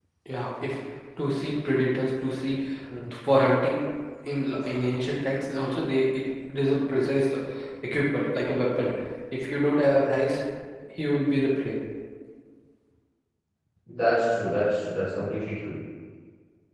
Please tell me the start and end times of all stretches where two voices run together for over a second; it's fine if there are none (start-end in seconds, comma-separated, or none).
none